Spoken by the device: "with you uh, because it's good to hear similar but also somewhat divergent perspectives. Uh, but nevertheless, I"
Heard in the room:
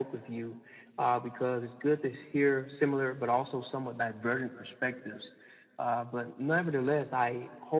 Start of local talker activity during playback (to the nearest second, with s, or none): none